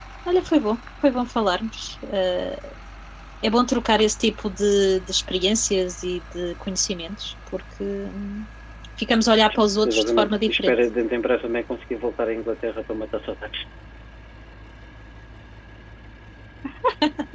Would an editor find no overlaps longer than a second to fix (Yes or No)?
No